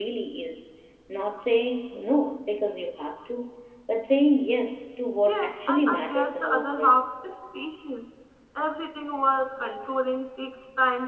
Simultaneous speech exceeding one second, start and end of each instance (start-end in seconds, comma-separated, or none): 5.3-7.0